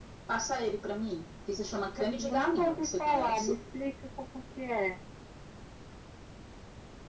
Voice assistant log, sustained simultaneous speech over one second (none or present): present